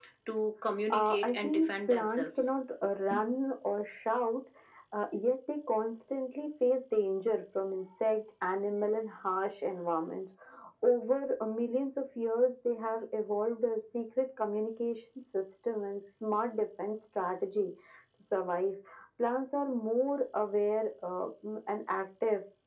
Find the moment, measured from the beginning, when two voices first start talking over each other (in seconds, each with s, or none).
0.9 s